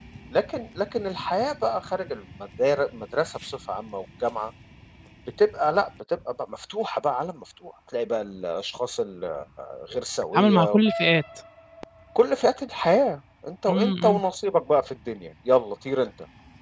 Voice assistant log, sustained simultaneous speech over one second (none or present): none